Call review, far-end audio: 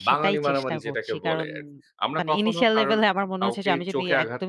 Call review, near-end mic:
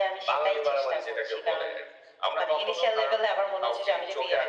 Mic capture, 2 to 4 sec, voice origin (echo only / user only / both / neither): echo only